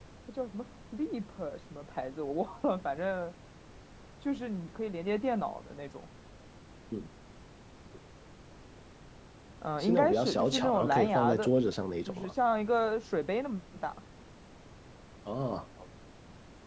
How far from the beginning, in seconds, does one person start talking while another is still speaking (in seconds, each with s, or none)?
9.8 s